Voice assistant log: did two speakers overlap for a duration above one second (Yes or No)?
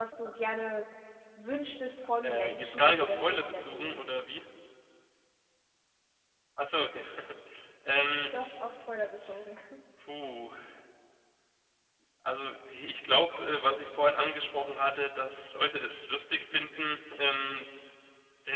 Yes